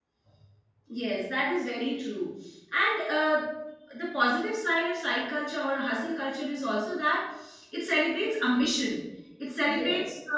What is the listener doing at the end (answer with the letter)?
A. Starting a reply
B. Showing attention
B